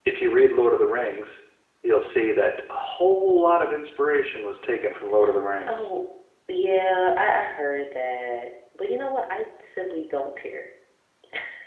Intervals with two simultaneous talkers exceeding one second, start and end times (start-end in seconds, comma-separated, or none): none